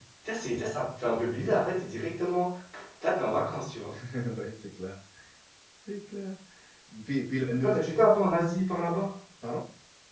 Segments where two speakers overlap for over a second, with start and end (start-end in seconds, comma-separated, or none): none